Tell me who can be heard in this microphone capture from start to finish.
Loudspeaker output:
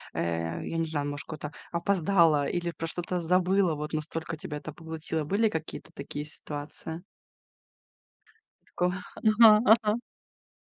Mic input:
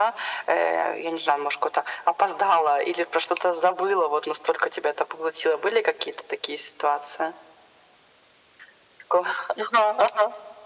echo only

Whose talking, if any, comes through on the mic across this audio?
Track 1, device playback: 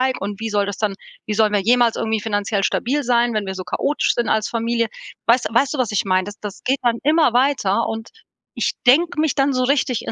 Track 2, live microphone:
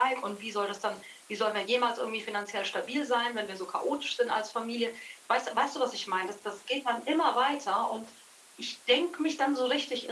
echo only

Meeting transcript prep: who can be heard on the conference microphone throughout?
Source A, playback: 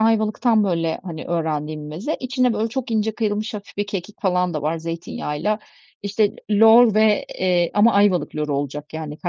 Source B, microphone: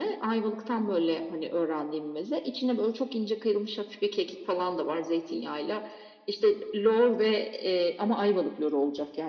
echo only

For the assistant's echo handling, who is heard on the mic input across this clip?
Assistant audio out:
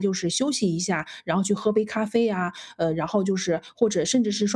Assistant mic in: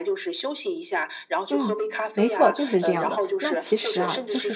both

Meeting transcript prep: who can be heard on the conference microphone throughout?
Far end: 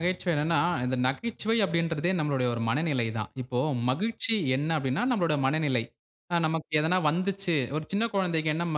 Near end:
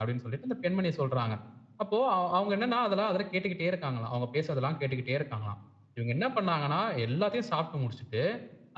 user only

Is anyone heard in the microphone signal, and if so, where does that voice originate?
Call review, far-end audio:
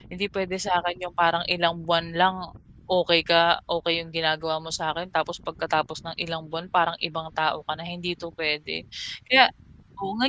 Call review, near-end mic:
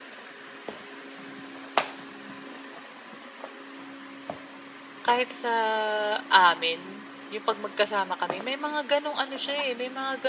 user only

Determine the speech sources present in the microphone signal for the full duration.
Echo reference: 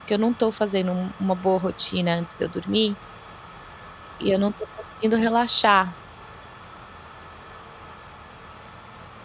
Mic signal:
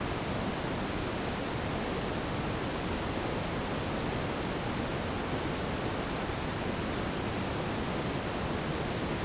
neither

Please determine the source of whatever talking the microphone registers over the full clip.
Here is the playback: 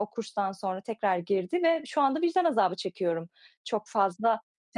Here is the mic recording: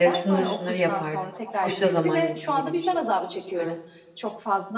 both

